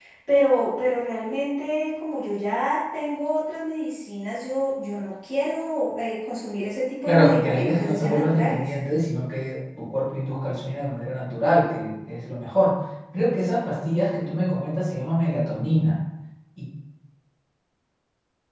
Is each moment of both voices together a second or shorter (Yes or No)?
No